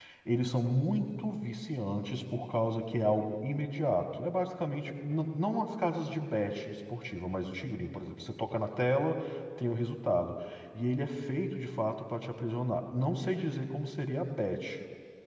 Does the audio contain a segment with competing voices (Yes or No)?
No